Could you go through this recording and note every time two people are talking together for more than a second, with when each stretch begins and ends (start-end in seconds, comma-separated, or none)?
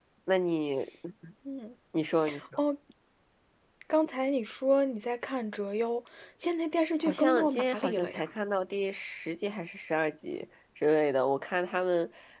7.0-8.3